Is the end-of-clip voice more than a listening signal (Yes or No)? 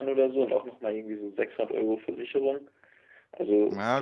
No